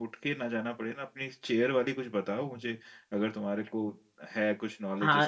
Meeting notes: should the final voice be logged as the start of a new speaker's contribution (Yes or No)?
Yes